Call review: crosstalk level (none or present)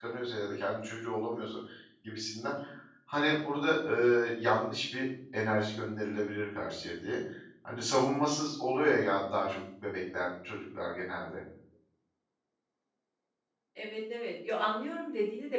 none